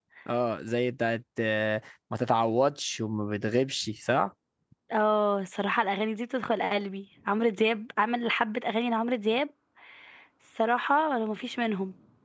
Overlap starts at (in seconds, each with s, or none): none